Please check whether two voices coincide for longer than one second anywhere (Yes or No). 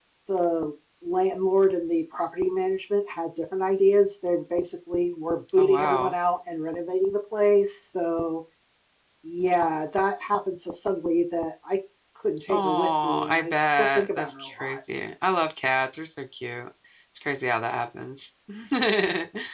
Yes